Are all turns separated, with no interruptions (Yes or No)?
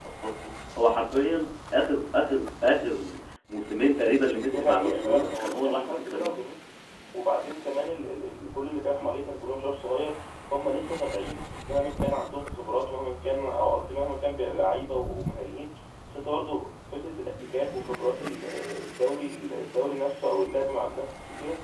No